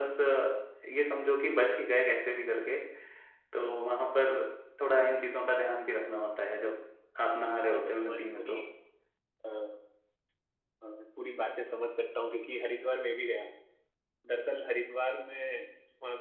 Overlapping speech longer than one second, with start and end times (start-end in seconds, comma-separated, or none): 7.2-8.6